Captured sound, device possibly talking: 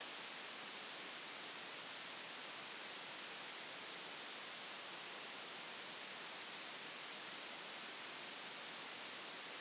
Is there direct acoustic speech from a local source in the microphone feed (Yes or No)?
No